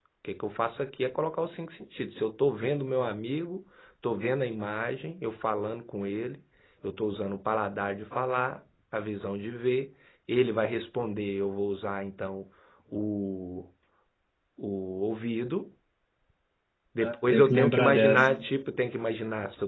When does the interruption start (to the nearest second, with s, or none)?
17 s